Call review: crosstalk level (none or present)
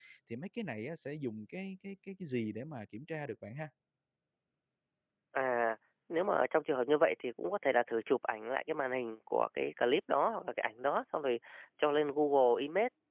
none